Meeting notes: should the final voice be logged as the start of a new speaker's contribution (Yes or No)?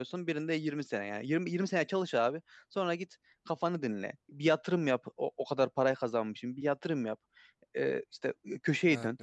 No